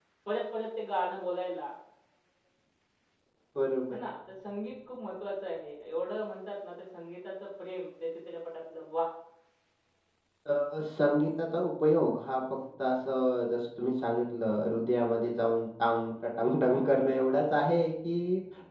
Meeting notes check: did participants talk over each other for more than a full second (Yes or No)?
No